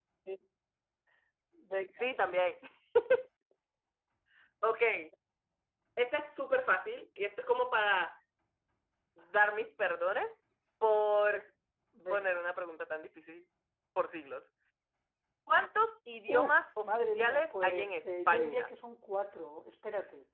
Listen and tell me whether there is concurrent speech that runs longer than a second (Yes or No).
Yes